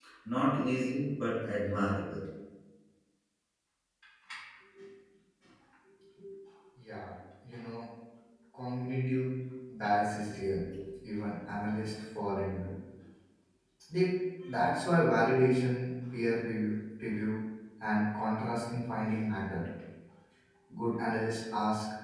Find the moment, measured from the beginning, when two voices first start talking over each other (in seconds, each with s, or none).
none